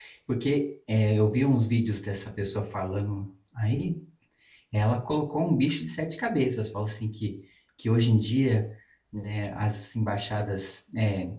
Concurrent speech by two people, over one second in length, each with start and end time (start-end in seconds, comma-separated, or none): none